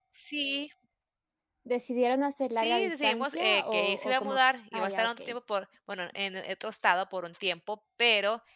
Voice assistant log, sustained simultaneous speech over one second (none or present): present